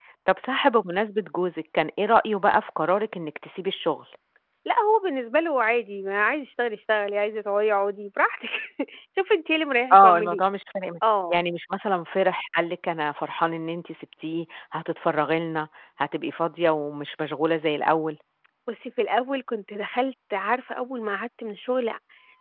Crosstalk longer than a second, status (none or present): none